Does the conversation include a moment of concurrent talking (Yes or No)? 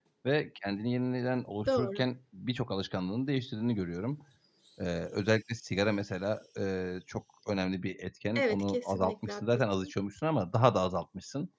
Yes